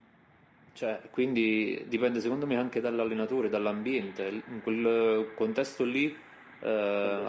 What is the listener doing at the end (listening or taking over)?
listening